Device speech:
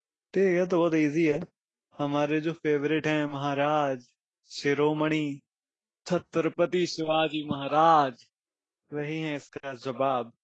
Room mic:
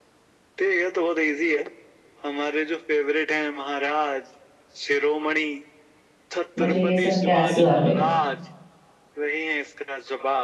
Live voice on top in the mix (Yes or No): Yes